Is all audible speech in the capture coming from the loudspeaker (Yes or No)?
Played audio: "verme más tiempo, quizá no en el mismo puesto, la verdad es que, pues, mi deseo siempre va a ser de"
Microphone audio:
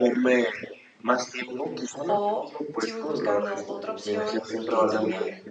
No